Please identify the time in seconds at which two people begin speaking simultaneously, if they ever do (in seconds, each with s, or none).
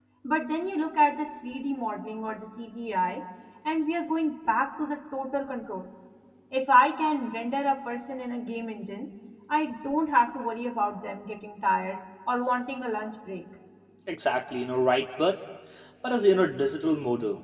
none